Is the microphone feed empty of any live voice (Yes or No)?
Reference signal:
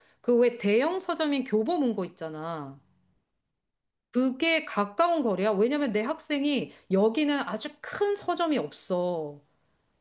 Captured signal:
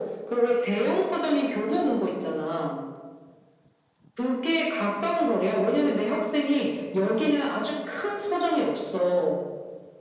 Yes